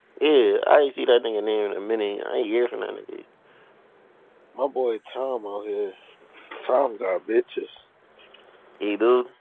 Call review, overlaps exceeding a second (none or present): none